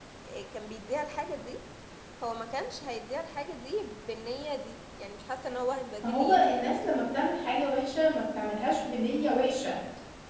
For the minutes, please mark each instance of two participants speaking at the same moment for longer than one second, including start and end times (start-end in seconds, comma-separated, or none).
none